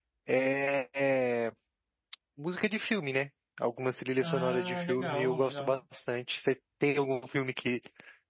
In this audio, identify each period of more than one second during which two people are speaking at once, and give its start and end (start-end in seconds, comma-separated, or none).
4.2-5.8